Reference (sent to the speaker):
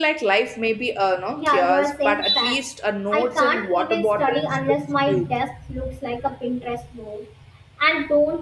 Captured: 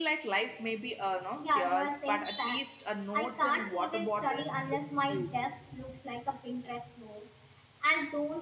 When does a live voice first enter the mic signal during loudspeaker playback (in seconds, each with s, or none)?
none